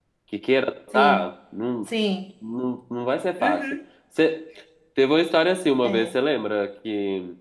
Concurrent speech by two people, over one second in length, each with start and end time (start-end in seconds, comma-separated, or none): none